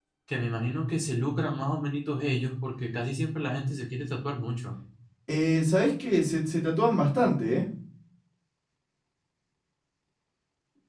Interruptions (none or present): none